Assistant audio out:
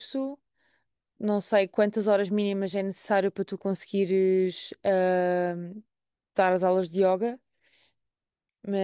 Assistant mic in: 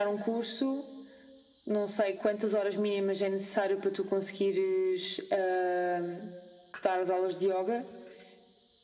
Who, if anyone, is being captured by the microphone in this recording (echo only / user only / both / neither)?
echo only